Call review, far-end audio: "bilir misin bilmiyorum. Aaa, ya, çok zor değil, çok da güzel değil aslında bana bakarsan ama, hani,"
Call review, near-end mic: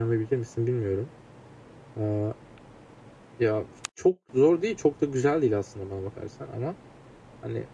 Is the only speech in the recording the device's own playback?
Yes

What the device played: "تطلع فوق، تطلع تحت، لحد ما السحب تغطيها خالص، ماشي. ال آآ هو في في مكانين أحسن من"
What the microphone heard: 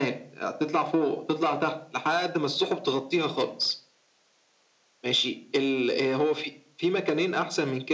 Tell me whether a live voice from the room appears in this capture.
No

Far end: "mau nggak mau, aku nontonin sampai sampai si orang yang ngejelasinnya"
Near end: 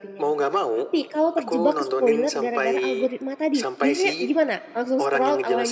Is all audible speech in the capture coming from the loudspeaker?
No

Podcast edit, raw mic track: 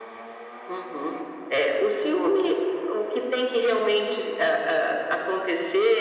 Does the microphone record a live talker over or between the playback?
No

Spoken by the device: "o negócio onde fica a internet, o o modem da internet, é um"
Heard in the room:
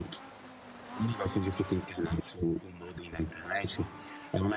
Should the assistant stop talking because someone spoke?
No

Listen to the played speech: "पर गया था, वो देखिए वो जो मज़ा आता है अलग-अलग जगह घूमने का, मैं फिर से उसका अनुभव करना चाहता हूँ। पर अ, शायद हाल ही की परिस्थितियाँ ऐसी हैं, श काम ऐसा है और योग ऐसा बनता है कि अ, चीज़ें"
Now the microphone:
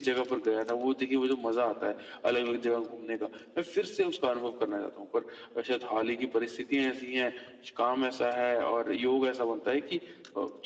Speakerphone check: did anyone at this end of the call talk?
No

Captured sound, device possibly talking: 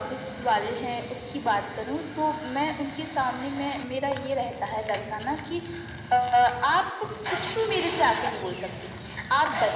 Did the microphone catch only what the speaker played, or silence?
Yes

